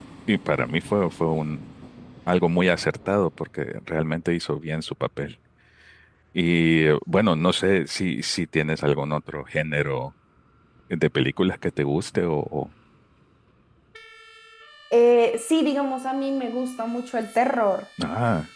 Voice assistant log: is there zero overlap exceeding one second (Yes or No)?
Yes